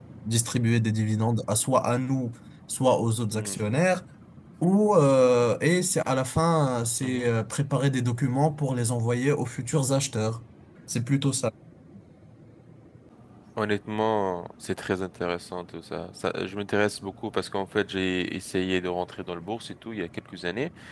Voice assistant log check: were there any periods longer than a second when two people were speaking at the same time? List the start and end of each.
none

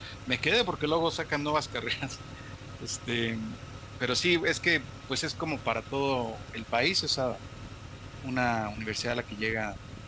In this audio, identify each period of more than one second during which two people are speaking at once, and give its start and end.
none

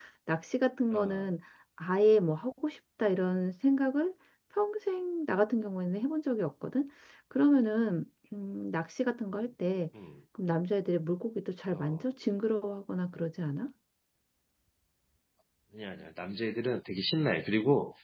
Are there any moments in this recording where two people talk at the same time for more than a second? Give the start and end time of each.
none

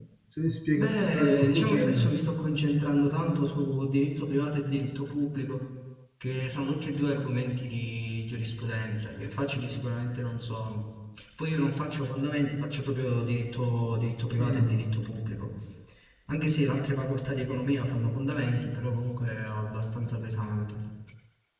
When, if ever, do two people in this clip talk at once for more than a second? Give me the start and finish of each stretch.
0.7-2.1

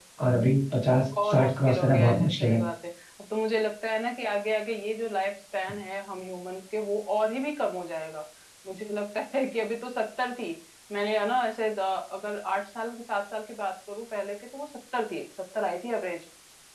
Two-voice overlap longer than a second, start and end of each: 1.2-2.6

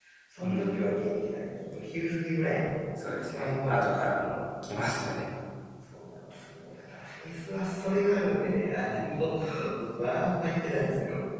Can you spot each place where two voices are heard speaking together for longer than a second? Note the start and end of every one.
2.9-4.4

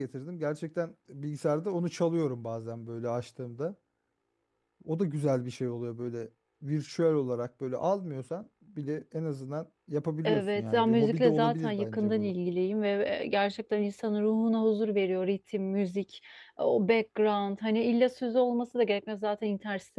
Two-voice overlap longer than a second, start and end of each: 10.2-12.3

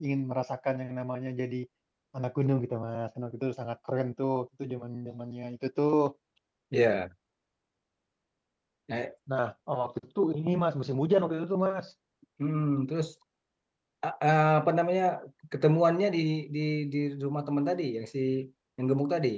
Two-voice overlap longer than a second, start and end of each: none

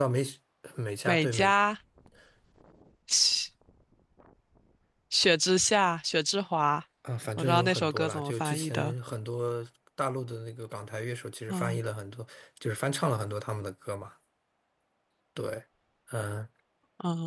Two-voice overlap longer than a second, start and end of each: 7.4-8.9

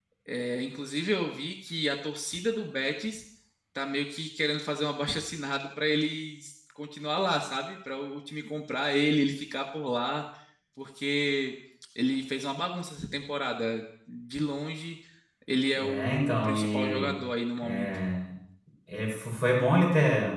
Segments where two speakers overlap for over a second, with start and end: 15.8-17.1

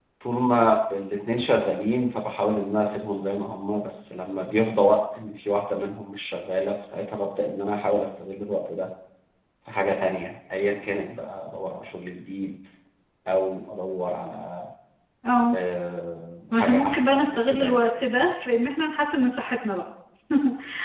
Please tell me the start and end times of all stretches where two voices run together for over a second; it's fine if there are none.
16.5-17.8

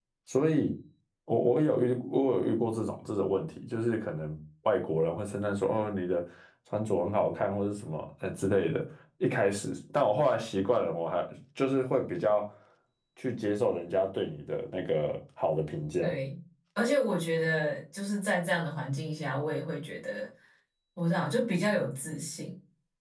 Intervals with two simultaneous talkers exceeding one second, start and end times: none

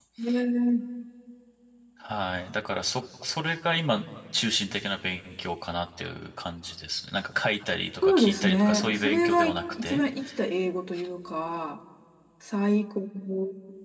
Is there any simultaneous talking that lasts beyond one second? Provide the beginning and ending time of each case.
8.0-10.0

